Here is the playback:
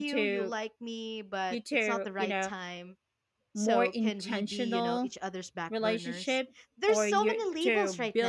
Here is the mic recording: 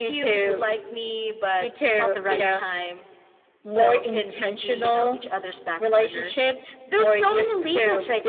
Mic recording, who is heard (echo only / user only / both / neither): echo only